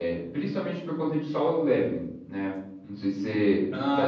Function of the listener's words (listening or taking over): taking over